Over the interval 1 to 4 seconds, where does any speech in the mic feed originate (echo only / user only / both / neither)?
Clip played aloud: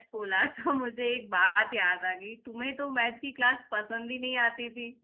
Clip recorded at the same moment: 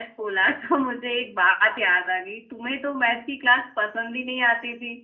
echo only